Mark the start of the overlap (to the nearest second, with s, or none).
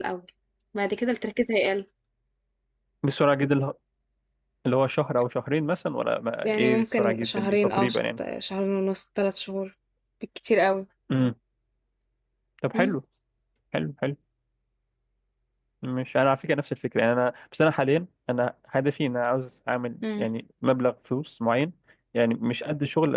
6 s